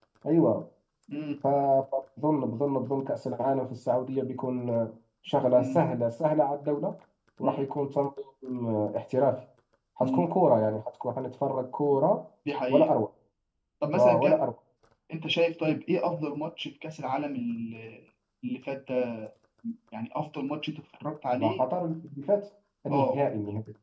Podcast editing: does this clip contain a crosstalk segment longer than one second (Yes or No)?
No